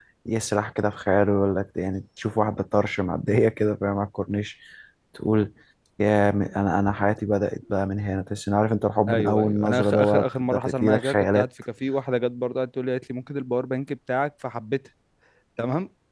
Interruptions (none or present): present